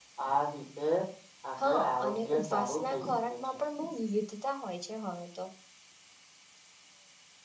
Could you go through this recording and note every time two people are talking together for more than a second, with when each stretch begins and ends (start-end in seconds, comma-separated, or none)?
1.6-3.3